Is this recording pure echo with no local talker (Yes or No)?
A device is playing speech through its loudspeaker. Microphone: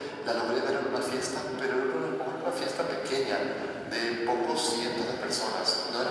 Yes